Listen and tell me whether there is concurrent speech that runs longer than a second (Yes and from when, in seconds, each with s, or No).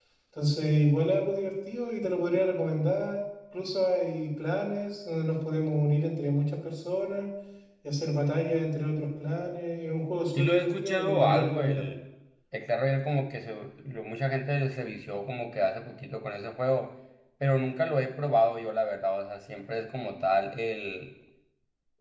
Yes, from 10.4 s